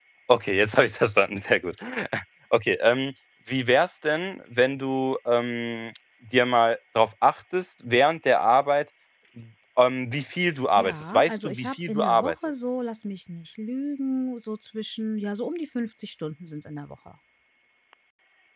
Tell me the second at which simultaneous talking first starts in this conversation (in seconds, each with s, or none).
10.8 s